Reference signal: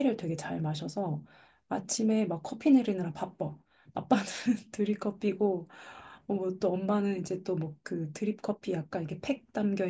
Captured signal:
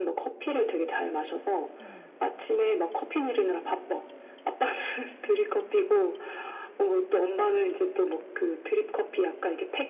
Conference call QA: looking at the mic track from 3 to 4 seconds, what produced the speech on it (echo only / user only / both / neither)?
echo only